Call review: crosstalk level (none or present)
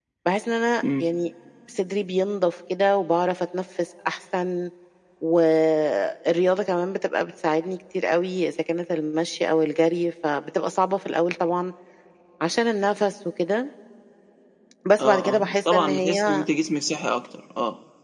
present